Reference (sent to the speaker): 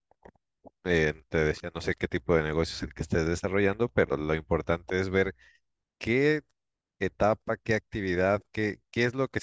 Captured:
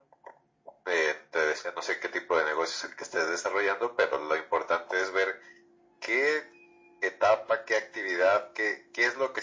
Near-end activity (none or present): none